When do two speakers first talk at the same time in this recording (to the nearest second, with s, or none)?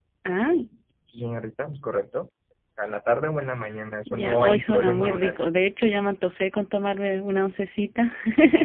4 s